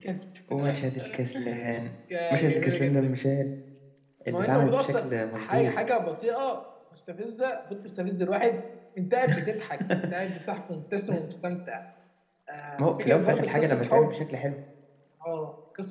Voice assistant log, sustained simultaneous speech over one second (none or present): present